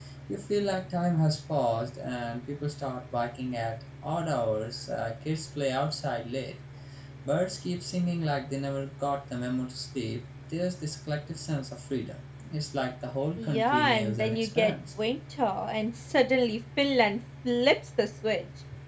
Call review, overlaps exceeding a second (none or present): present